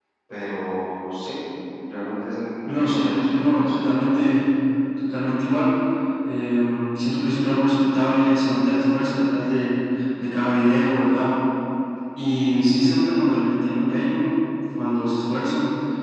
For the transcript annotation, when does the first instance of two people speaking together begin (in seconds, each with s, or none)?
2.6 s